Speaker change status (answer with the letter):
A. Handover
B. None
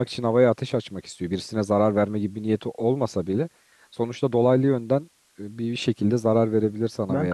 A